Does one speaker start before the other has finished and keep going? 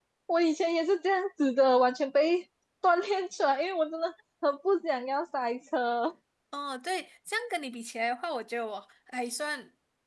No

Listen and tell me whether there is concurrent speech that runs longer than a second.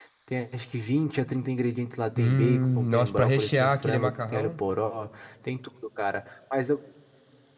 Yes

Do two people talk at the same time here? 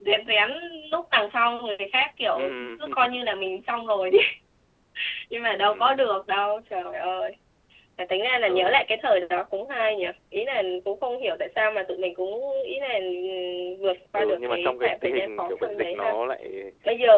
Yes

